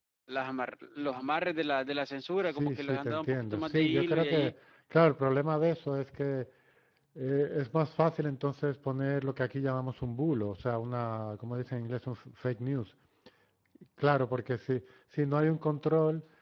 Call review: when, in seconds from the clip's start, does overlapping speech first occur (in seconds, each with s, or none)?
2.5 s